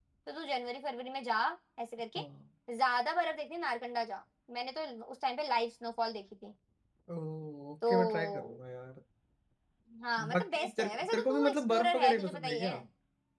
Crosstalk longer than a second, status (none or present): present